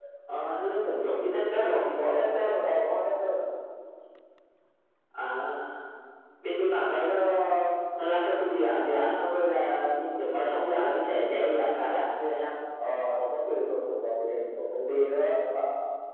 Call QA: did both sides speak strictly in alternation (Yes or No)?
Yes